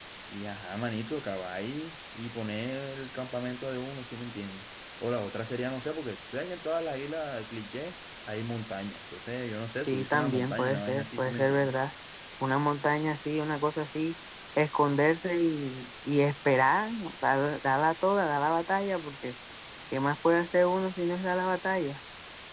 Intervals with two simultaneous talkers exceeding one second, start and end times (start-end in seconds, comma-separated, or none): 9.8-11.7